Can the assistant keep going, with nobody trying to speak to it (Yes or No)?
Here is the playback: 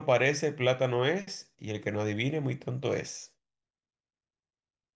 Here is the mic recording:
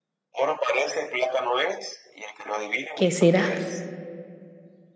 No